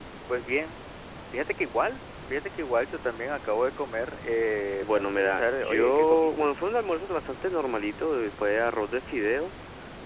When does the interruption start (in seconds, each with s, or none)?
4.8 s